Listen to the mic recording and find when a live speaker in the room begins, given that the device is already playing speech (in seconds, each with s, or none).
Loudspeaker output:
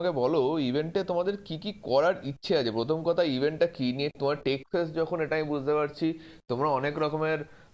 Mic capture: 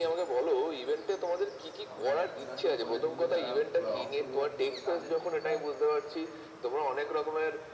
1.9 s